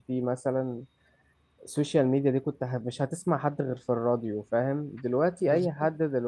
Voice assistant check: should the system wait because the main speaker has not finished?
Yes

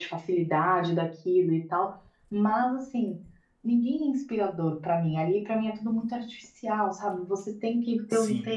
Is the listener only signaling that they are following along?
Yes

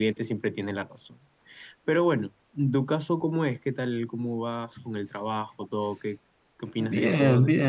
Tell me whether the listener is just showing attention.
No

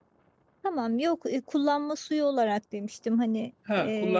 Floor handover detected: Yes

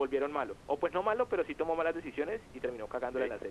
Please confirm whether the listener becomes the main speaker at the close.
Yes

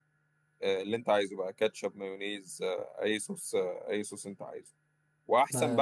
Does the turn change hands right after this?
No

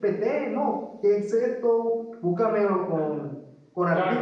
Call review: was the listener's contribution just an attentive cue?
No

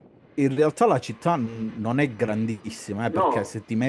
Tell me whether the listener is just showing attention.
Yes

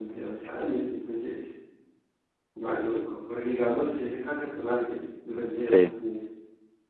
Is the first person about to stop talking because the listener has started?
No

